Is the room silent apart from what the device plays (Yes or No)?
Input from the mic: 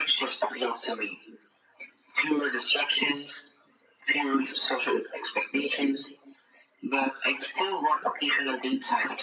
Yes